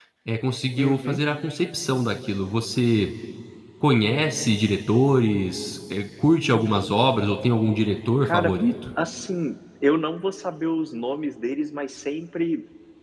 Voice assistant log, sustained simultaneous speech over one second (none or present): none